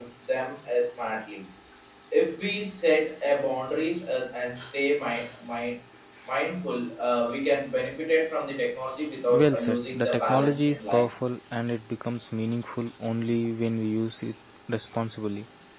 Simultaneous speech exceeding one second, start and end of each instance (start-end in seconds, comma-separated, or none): 9.4-11.1